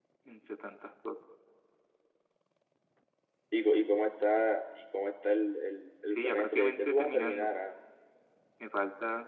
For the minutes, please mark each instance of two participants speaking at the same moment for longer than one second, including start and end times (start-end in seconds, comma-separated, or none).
6.1-7.5